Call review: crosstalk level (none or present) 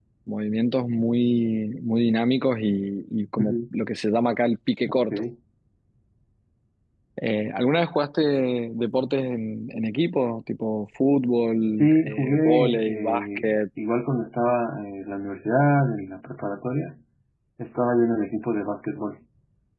present